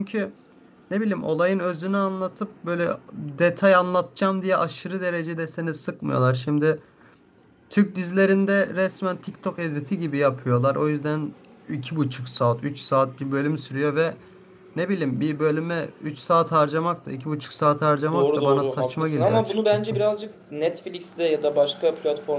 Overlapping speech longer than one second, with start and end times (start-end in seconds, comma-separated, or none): 18.1-19.9